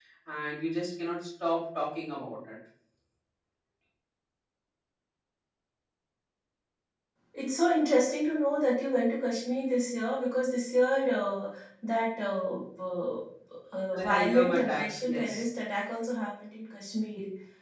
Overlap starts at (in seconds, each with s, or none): 13.9 s